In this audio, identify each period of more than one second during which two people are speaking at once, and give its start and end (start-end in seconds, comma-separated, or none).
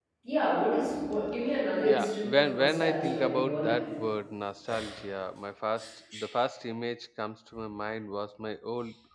1.8-3.8